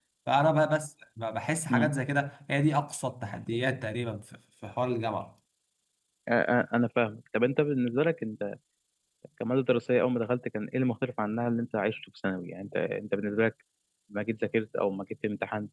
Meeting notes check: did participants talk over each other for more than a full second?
No

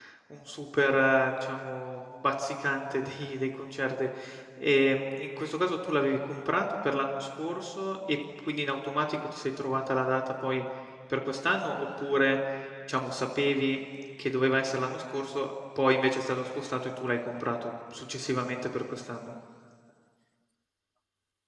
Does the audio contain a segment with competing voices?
No

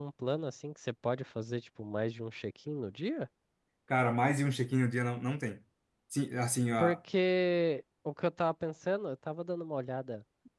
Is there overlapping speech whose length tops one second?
No

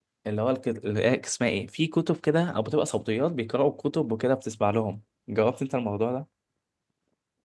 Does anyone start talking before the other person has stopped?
No

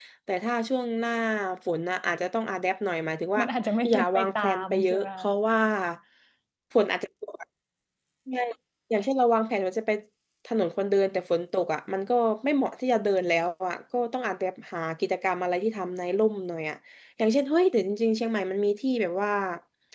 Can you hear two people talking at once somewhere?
Yes, from 3.9 s

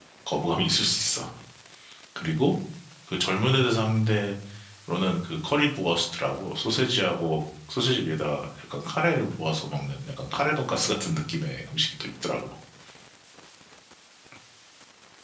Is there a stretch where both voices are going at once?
No

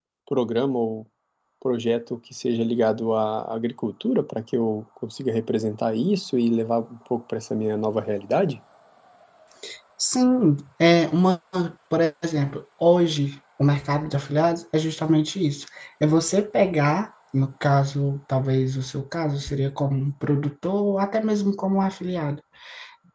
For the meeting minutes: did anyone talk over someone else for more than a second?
No

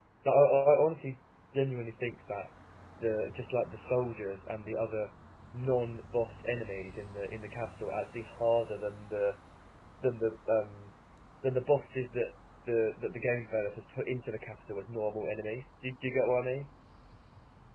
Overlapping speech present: No

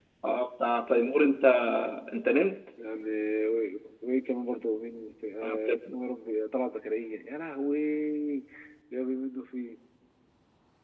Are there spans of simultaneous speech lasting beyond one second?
No

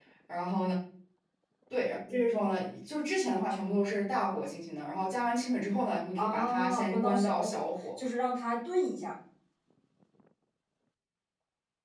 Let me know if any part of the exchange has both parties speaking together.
Yes, from 6.2 s

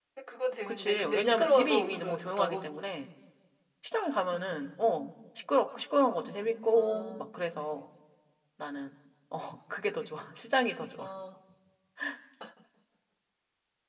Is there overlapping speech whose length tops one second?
Yes, from 0.7 s

